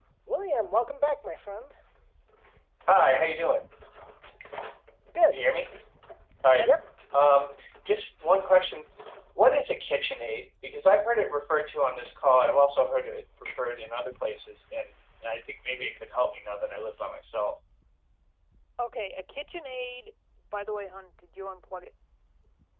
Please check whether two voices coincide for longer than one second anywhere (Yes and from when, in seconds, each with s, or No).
No